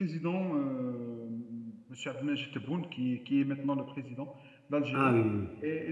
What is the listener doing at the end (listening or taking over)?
listening